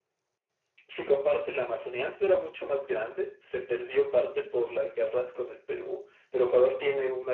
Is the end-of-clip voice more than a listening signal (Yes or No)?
No